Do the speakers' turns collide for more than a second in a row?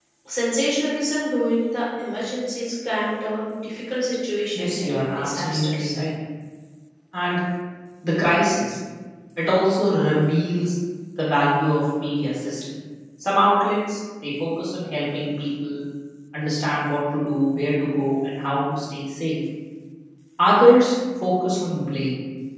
Yes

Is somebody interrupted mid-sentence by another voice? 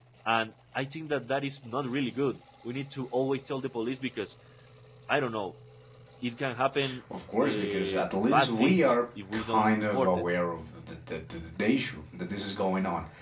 Yes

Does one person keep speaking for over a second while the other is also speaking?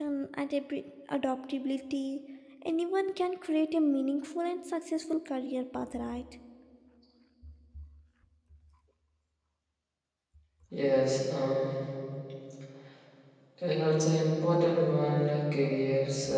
No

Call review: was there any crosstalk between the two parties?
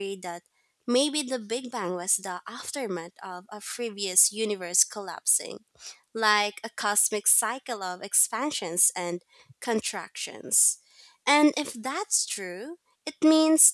No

